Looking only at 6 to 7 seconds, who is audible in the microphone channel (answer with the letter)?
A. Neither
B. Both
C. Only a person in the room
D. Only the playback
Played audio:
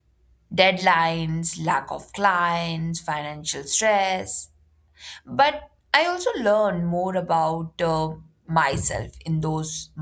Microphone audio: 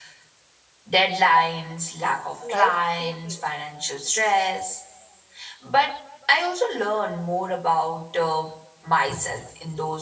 D